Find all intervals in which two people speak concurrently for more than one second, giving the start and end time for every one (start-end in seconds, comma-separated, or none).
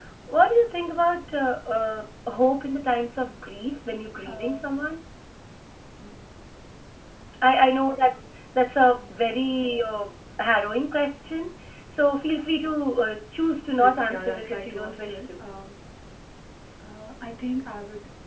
13.8-15.3